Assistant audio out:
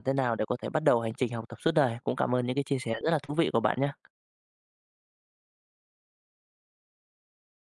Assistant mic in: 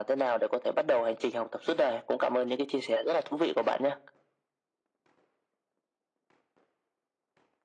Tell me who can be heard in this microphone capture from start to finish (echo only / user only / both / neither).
echo only